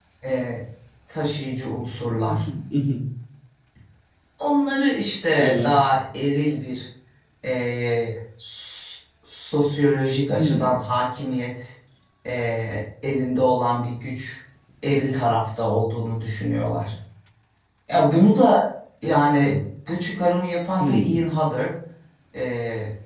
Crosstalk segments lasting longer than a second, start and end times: none

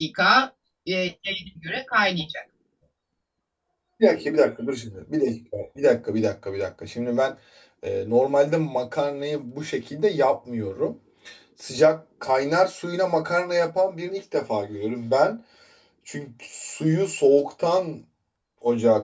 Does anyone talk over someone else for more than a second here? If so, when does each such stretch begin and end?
none

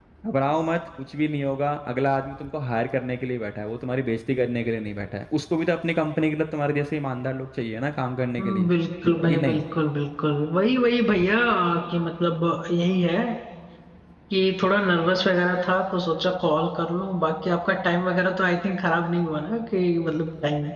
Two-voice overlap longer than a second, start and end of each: none

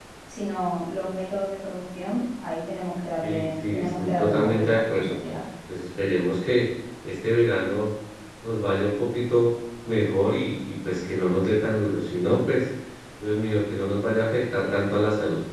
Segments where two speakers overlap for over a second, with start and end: 3.2-5.1

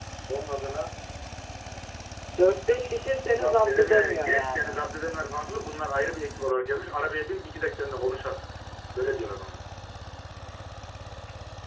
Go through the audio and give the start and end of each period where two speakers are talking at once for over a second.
3.3-4.9

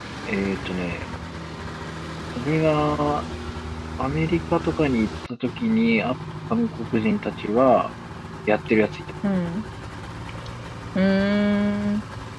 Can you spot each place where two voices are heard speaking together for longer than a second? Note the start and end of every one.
none

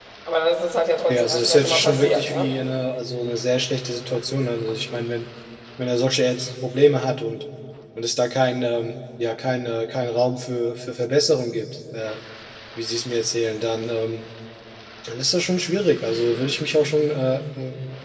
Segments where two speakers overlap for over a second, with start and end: 1.1-2.5

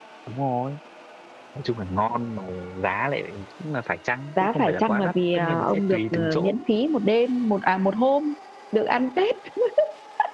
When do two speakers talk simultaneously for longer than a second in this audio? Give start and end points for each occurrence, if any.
4.4-6.6

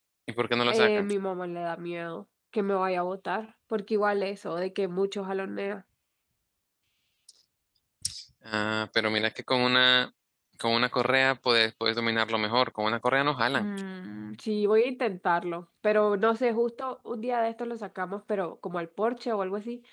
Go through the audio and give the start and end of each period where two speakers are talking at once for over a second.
none

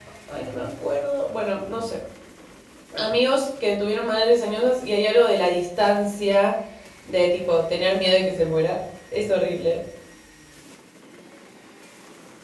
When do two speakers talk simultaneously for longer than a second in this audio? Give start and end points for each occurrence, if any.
none

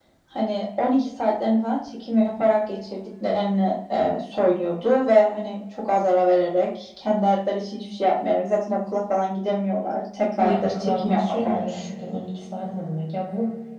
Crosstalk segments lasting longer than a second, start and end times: 10.4-11.9

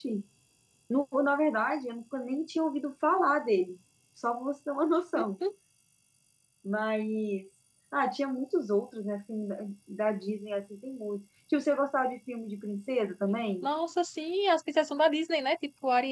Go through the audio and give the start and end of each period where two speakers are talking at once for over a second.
none

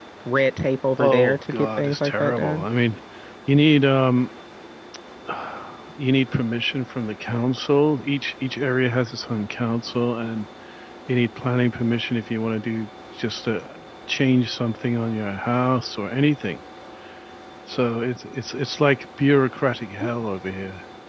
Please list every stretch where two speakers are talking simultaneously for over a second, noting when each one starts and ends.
1.0-2.7

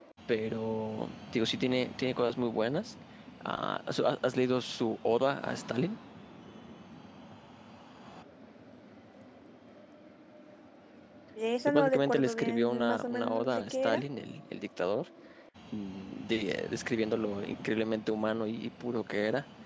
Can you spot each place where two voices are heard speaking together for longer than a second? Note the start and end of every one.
11.7-14.0

